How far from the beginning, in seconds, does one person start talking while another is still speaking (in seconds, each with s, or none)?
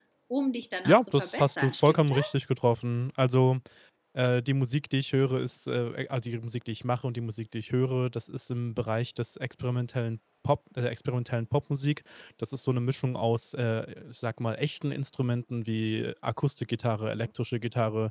0.8 s